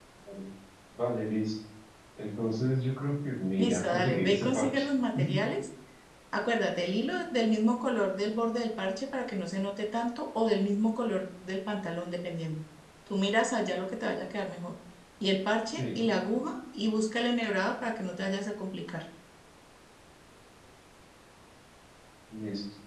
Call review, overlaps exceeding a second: present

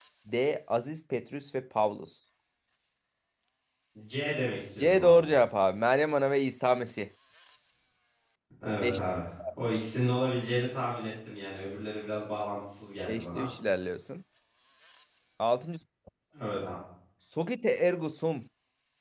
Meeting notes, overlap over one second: none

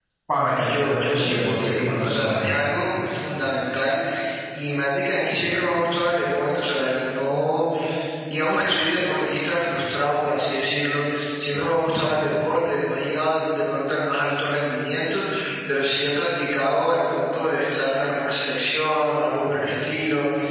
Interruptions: present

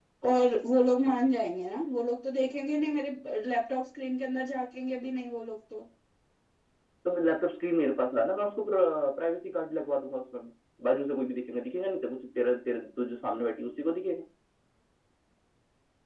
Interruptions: none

